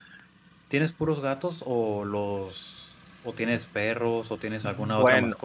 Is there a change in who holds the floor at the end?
No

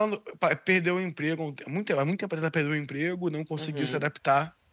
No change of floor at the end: Yes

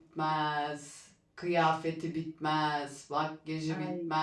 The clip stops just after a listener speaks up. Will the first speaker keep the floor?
Yes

